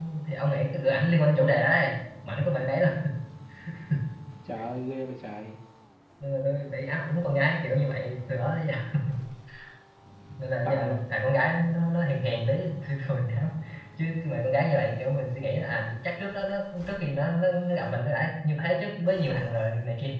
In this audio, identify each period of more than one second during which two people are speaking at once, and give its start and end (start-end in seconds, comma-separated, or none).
none